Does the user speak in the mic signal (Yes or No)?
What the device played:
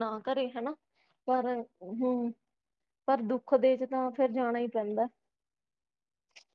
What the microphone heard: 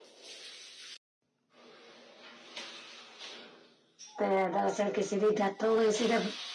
Yes